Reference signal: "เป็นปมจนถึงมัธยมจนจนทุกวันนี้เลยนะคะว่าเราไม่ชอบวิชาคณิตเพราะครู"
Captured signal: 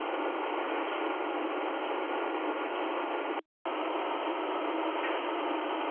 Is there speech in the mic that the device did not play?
No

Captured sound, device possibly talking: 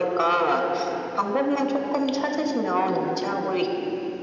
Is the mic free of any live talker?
Yes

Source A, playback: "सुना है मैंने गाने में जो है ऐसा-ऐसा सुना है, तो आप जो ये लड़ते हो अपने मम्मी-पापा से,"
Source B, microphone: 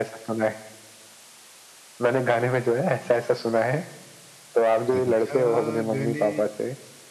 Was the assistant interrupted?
Yes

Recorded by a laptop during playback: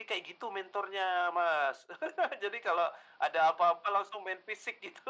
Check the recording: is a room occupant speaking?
No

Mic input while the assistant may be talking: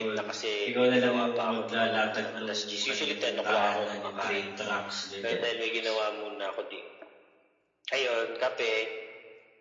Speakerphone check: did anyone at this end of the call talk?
Yes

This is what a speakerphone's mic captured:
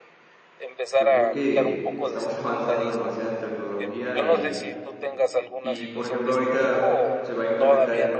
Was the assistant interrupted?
Yes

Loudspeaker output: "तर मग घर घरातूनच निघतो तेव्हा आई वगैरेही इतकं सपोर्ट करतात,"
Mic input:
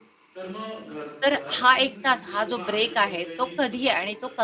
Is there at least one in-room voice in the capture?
Yes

